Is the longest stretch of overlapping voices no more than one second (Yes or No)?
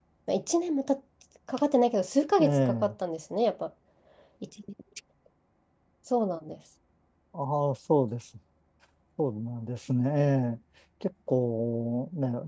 Yes